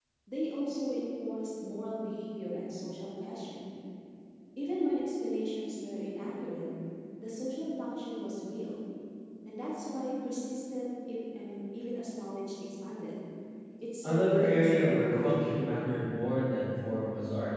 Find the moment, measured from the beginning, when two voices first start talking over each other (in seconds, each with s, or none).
14.0 s